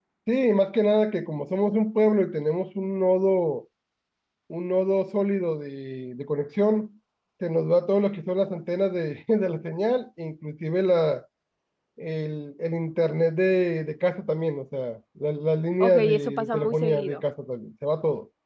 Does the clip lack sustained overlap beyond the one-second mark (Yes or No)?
No